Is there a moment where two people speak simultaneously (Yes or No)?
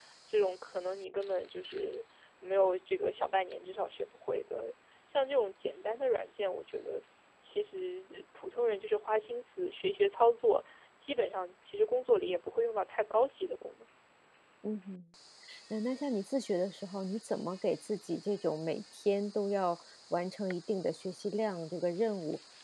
No